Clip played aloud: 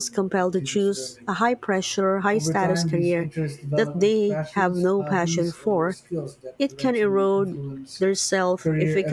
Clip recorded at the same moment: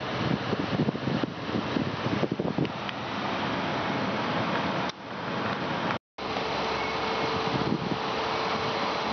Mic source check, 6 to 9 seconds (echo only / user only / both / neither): neither